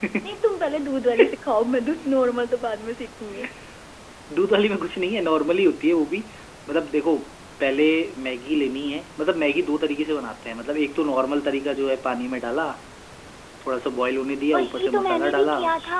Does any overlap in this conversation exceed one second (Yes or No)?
Yes